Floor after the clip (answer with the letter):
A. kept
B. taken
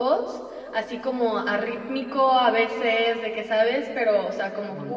A